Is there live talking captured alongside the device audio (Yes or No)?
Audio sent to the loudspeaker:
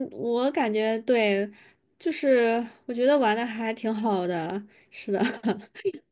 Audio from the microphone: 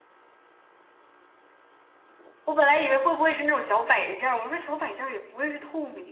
Yes